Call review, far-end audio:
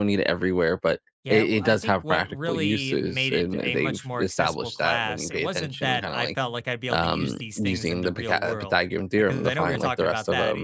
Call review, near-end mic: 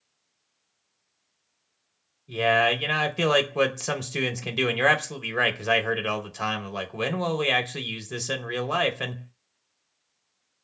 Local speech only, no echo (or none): Yeah. You know, I feel like what some students can do, and you're absolutely right, because I heard it all the time of like, when will we actually use this in real life? And,